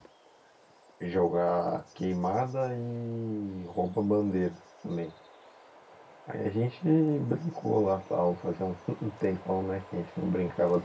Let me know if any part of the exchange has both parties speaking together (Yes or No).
No